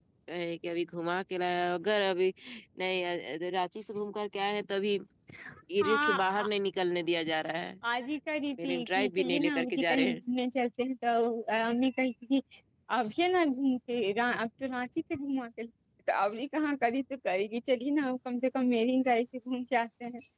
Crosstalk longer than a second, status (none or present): present